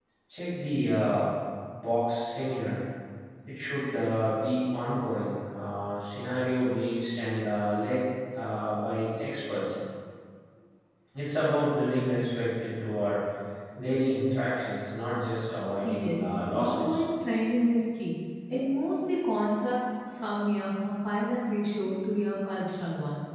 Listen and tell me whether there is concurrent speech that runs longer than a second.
Yes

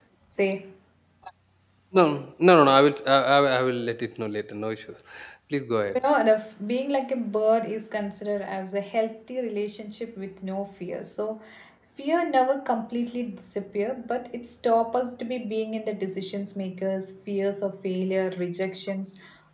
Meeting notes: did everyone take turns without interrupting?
Yes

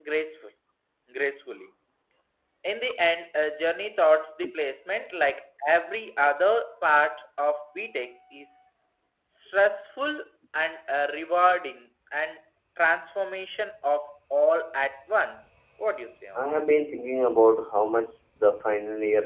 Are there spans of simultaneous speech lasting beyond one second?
No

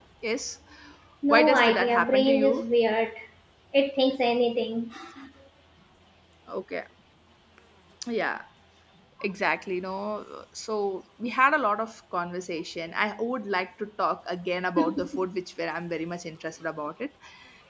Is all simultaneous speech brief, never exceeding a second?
No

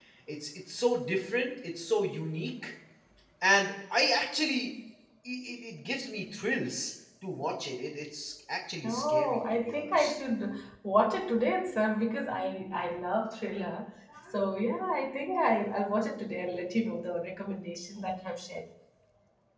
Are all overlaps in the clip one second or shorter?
No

